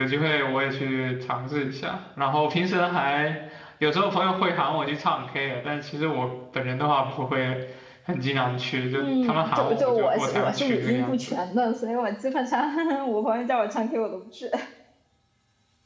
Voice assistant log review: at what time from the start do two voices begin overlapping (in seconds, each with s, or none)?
8.9 s